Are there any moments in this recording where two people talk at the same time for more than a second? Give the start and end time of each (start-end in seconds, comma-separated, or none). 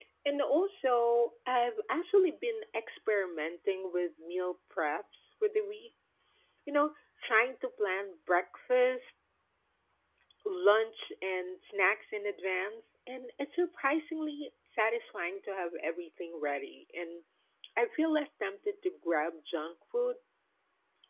none